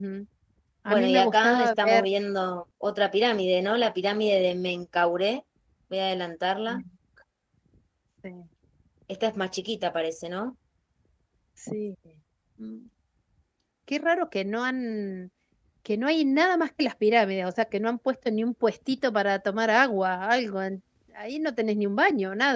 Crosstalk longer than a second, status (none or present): present